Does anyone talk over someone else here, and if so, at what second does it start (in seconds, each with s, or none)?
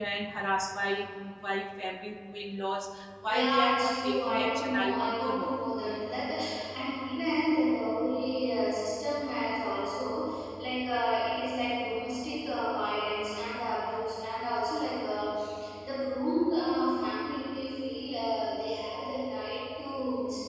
3.4 s